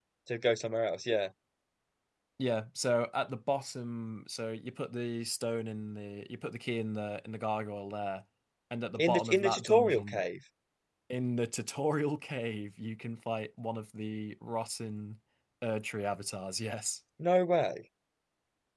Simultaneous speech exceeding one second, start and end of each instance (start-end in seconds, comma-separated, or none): 9.0-10.2